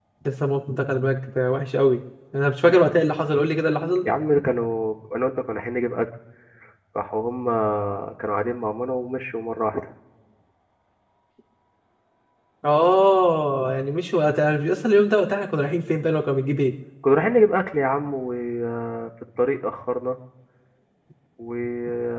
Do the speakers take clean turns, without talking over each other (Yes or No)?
Yes